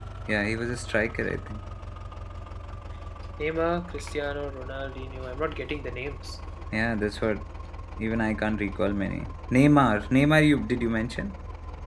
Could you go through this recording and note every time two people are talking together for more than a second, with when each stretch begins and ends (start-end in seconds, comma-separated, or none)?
none